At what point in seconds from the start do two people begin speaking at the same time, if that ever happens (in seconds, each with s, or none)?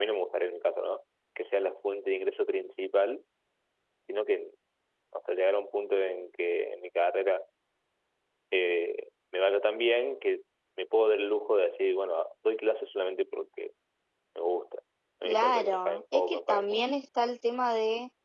15.2 s